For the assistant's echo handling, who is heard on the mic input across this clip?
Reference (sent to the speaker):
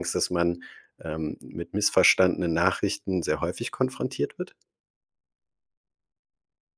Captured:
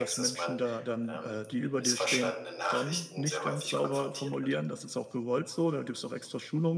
both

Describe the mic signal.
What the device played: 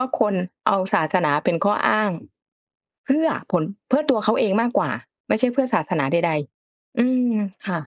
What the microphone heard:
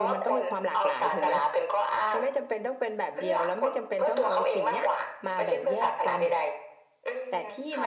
both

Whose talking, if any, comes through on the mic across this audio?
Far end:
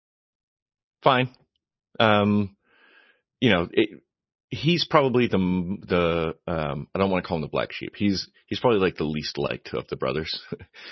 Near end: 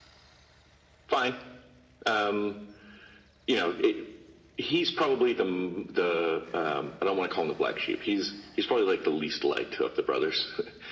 echo only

